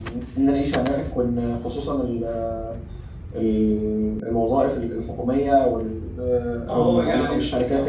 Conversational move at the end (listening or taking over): taking over